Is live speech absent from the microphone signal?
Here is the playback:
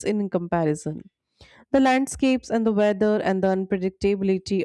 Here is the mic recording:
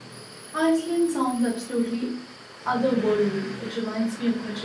No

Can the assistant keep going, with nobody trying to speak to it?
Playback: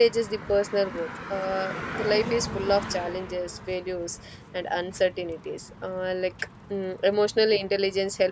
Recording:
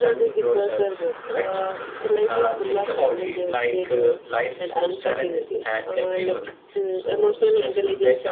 No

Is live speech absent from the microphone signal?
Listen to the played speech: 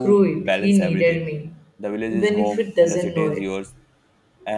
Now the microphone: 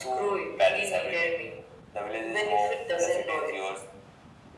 Yes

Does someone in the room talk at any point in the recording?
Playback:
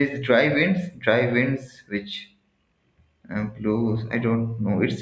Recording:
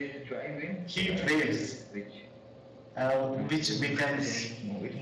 Yes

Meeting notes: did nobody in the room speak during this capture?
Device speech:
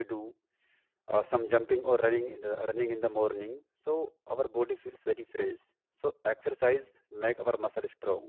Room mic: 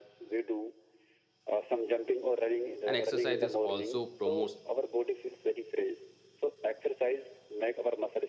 No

